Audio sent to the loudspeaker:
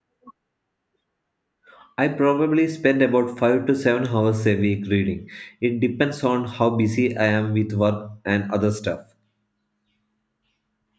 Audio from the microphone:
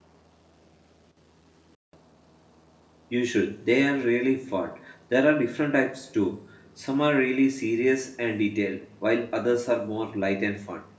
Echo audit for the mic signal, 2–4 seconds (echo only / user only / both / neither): user only